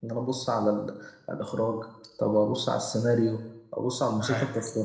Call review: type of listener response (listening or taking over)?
listening